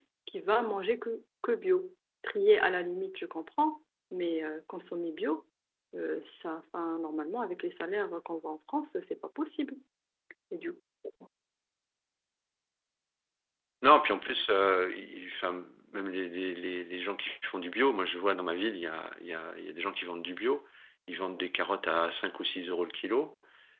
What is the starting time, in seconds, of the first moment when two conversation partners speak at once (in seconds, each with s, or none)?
none